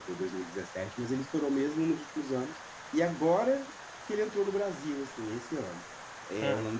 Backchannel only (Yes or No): Yes